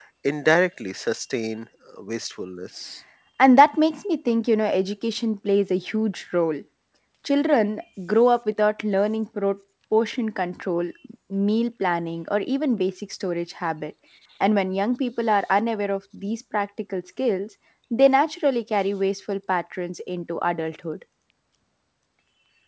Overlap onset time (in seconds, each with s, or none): none